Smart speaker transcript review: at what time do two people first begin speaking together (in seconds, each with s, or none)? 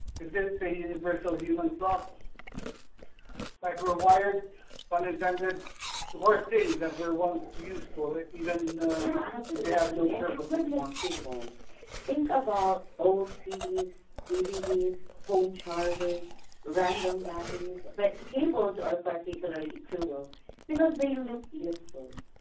9.0 s